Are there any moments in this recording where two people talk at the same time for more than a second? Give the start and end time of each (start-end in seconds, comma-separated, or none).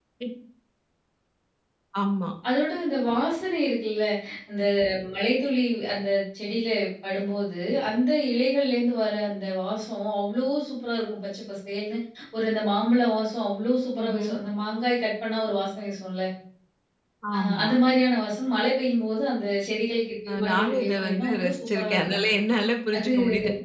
20.3-22.3